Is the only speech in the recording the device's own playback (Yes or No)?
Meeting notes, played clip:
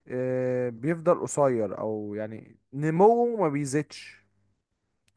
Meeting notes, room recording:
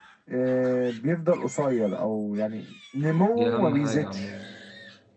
No